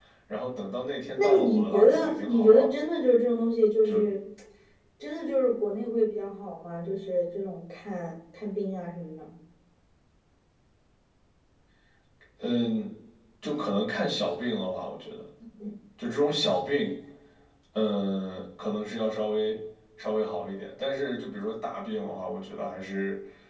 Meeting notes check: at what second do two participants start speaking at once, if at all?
1.2 s

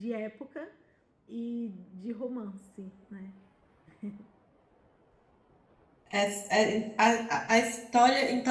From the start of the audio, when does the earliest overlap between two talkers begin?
none

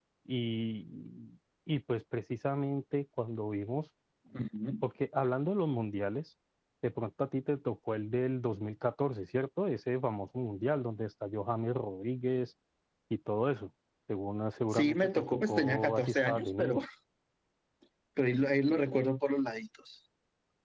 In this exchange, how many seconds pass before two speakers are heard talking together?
14.7 s

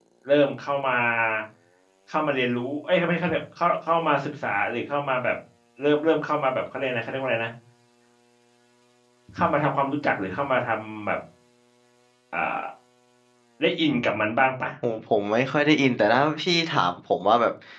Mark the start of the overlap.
none

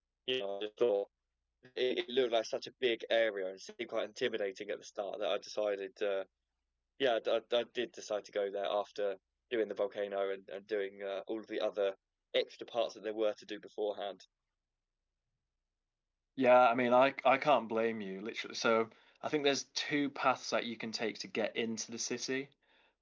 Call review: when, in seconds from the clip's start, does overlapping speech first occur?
none

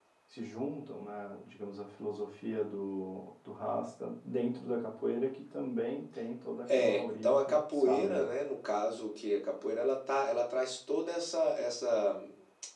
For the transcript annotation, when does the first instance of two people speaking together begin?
6.7 s

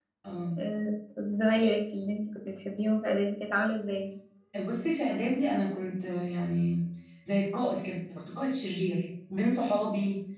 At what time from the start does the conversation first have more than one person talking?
none

